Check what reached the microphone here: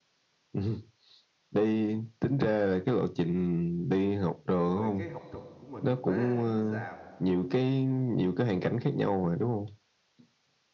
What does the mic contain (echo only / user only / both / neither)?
both